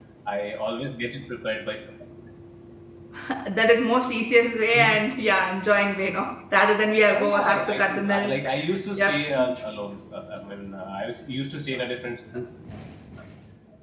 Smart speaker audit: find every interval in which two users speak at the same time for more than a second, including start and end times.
7.1-8.4

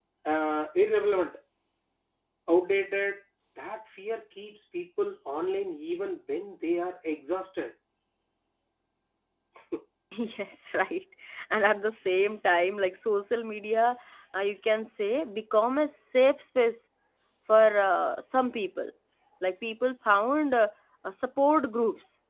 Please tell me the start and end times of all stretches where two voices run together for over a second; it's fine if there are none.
none

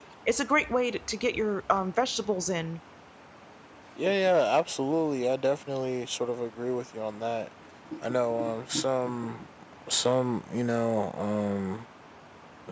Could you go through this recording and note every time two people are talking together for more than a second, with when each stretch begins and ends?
none

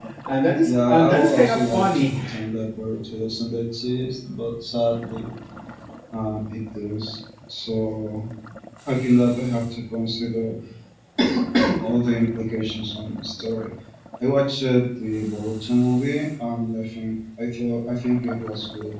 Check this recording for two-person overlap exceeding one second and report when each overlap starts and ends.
0.6-2.2

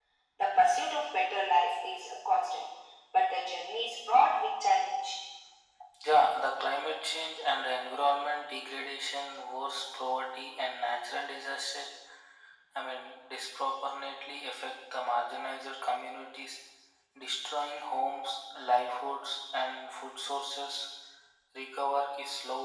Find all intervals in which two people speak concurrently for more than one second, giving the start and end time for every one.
none

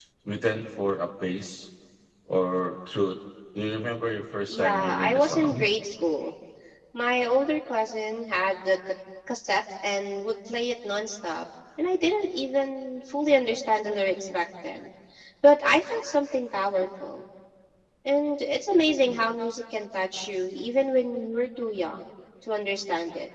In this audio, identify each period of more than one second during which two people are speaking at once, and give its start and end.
4.5-5.7

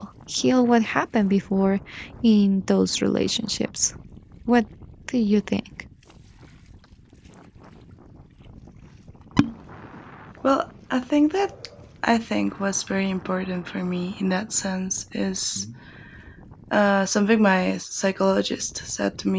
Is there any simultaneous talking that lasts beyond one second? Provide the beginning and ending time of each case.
none

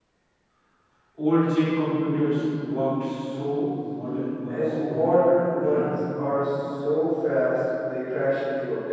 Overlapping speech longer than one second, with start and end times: 4.5-5.9

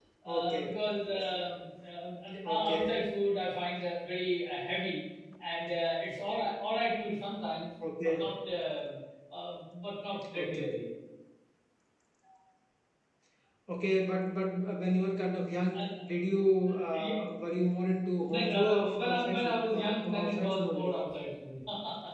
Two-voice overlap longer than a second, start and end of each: 18.3-20.9

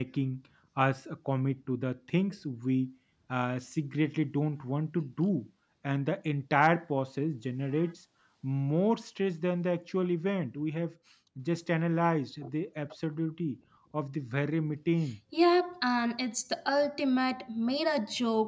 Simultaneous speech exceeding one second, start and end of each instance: none

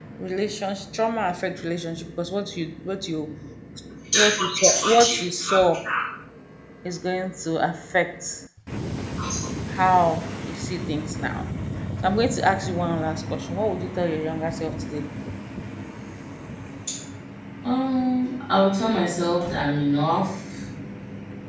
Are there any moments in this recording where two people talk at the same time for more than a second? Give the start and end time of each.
4.2-5.6

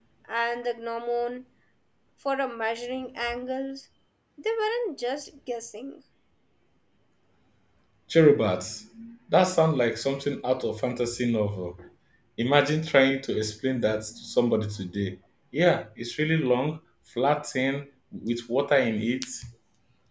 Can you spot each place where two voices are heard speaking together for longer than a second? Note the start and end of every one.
none

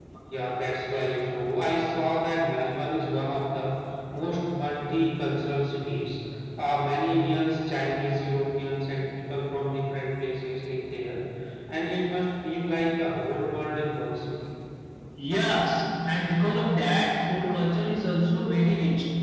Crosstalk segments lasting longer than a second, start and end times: none

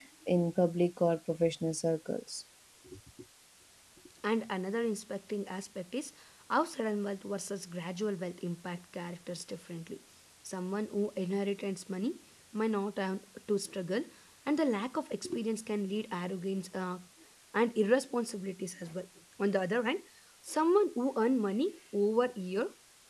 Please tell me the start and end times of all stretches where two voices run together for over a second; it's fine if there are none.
none

